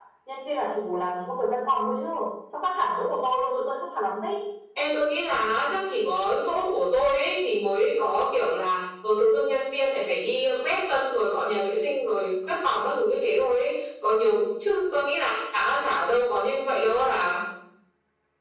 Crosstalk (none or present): none